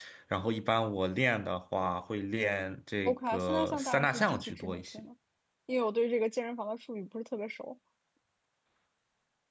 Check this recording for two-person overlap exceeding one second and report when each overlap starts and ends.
3.0-5.0

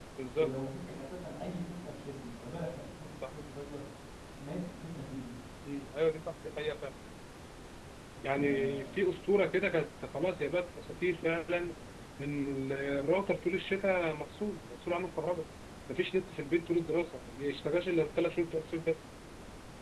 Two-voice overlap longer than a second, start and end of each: none

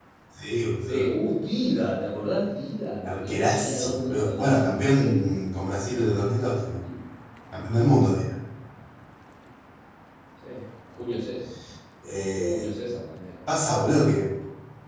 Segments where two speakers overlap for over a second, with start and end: 3.0-5.4

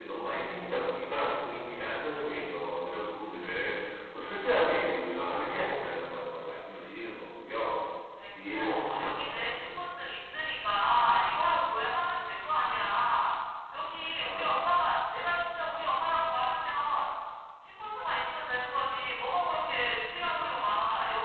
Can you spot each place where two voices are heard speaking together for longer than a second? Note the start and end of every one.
8.5-9.8

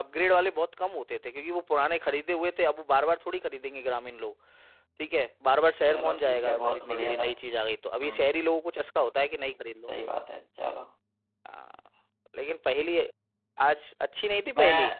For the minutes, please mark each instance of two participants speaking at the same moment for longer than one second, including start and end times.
5.9-7.3

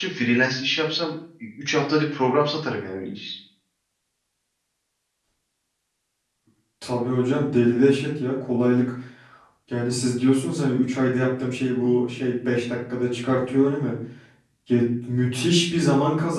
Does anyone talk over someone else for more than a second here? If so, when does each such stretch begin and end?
none

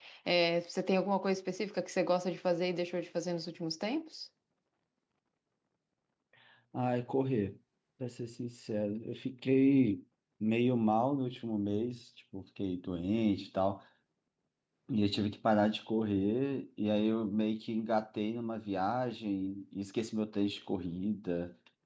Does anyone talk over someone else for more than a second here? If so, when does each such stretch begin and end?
none

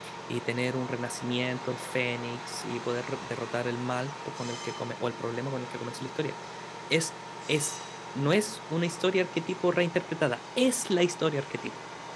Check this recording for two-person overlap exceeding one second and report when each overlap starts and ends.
none

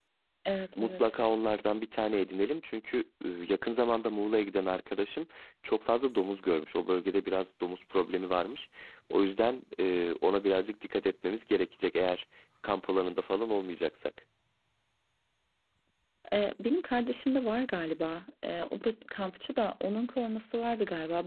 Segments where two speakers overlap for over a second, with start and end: none

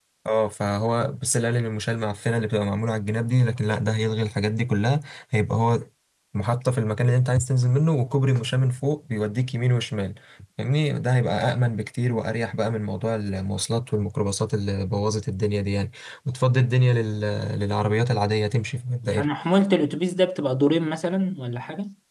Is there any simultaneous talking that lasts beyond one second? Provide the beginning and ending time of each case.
none

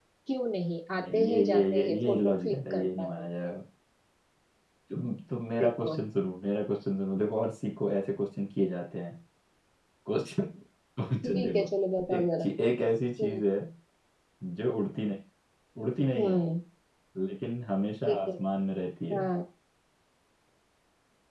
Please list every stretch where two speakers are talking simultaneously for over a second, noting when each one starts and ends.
1.0-3.2

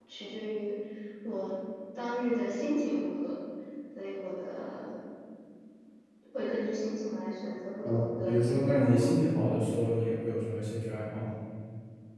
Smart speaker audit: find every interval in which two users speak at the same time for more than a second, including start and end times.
7.8-9.1

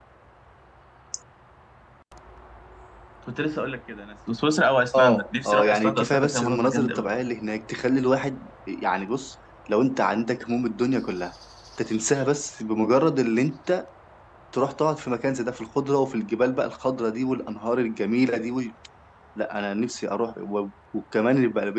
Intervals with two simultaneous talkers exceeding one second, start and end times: 5.0-7.2

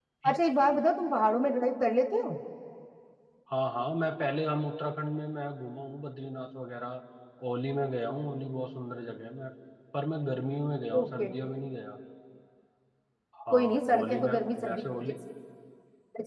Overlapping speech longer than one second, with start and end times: 13.5-15.1

